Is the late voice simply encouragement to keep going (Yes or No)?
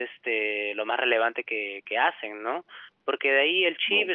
Yes